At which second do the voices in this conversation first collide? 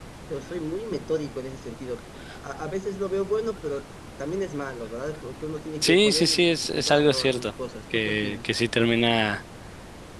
5.8 s

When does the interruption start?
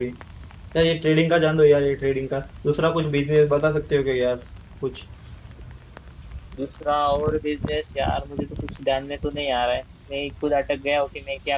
none

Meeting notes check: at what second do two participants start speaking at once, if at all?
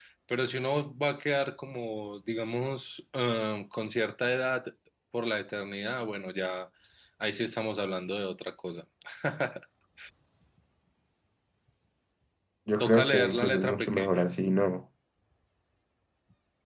12.8 s

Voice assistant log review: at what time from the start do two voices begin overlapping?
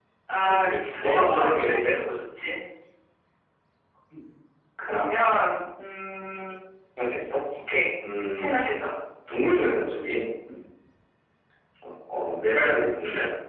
0.6 s

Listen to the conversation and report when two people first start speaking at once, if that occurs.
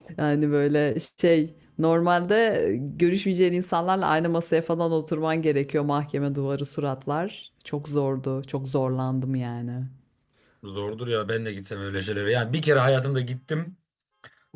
none

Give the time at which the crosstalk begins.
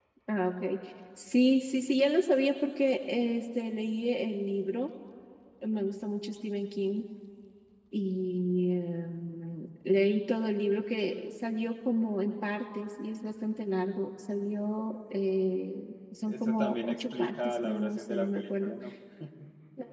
16.3 s

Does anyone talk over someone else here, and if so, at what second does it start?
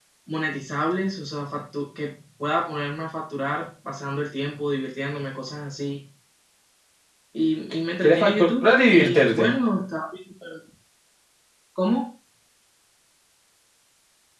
8.0 s

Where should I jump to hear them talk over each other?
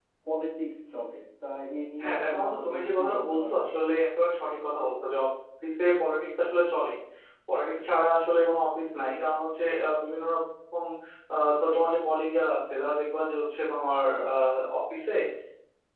2.0 s

